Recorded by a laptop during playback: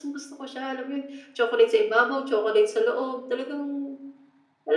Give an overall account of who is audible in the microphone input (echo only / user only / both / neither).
echo only